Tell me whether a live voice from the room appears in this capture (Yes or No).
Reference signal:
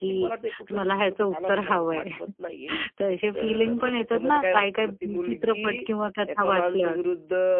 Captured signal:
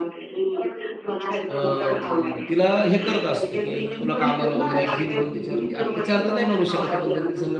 Yes